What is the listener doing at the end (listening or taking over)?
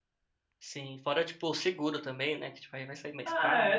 taking over